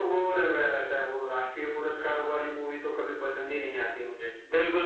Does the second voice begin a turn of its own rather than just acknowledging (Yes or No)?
Yes